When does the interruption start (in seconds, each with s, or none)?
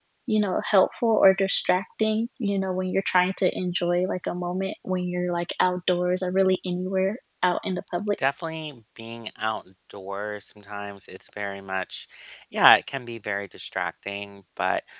none